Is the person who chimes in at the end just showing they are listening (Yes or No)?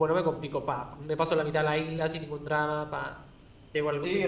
No